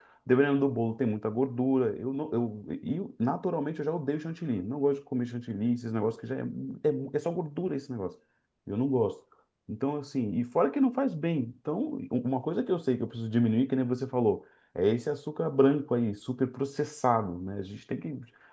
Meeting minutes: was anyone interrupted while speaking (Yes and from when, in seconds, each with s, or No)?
No